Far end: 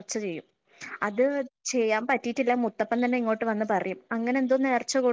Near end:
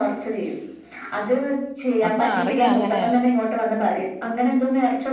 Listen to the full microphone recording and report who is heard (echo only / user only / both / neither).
both